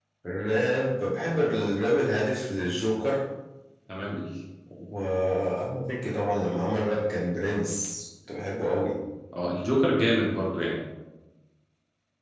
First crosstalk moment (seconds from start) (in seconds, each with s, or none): none